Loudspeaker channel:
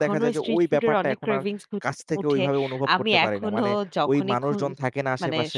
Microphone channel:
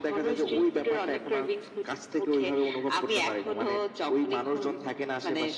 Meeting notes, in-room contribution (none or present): none